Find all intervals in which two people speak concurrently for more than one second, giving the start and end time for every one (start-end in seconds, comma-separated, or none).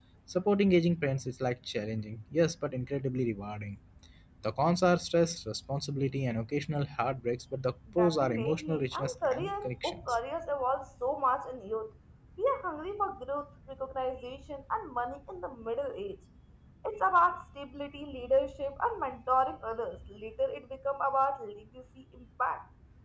8.0-10.2